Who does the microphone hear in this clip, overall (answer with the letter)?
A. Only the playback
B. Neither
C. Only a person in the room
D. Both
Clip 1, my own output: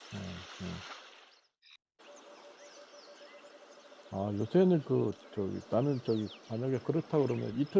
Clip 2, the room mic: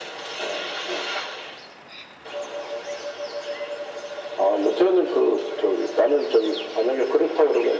A